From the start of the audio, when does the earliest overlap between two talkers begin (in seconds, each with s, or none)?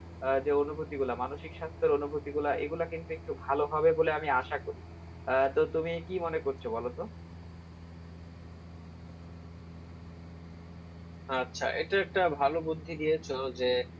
none